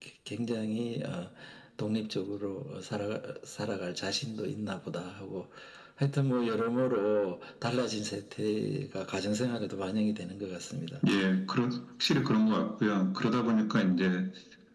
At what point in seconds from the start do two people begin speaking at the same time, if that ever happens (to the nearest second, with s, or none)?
none